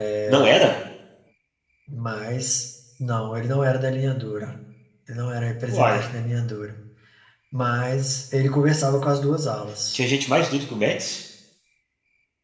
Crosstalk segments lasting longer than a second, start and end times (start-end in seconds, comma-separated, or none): none